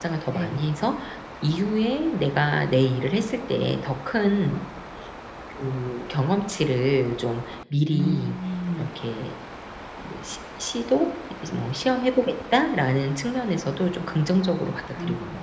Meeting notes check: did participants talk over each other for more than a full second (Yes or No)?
No